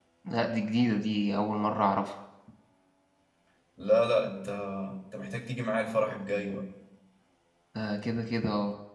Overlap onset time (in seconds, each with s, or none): none